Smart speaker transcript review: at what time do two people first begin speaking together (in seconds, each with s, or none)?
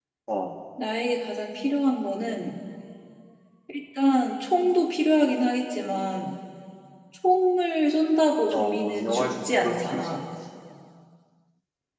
8.5 s